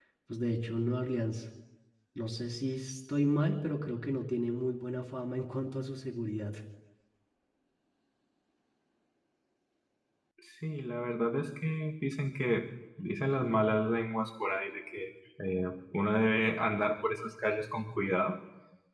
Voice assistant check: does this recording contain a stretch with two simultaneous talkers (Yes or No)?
No